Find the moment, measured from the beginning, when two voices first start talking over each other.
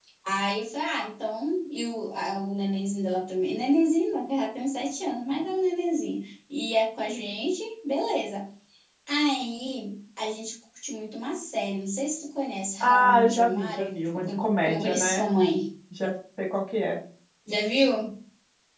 12.8 s

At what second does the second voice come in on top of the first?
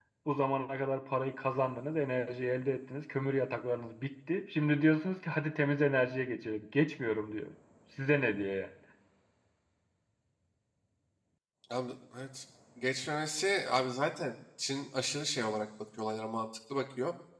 none

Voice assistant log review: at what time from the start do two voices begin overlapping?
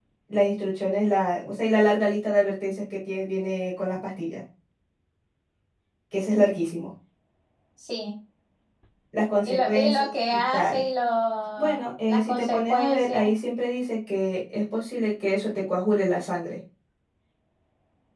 9.4 s

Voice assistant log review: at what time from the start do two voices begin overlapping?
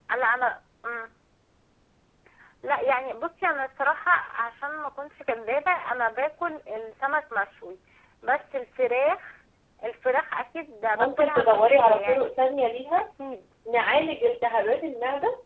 11.0 s

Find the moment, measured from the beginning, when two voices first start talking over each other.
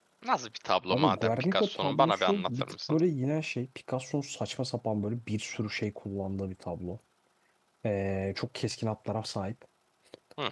0.9 s

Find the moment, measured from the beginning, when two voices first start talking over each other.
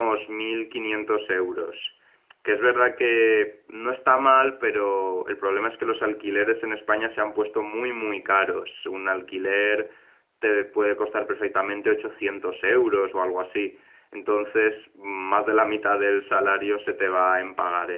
none

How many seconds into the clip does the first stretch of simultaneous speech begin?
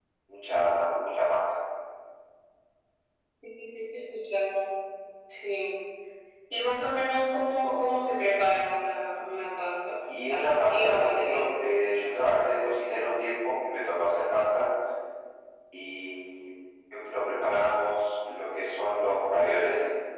10.1 s

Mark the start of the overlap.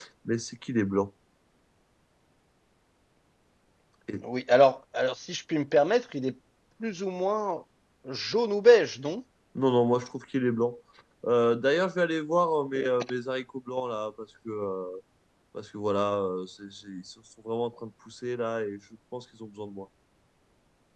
none

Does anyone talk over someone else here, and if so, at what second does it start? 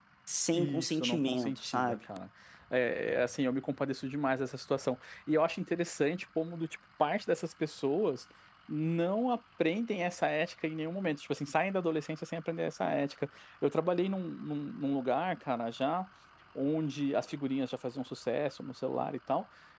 0.5 s

